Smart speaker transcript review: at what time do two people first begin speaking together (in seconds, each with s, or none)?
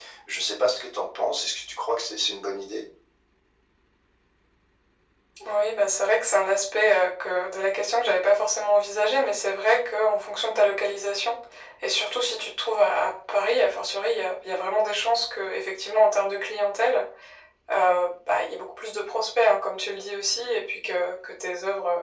none